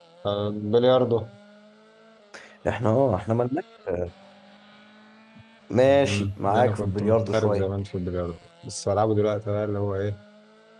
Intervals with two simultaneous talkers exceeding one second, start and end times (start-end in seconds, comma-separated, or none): 5.8-7.6